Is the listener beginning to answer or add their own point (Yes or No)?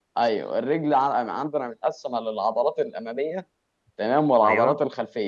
No